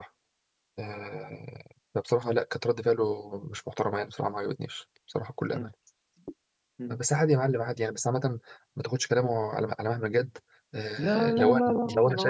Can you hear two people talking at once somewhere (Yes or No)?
Yes